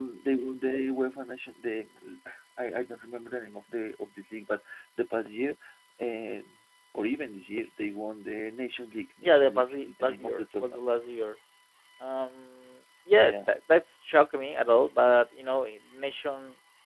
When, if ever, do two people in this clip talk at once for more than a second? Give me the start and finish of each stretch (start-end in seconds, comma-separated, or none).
9.2-10.9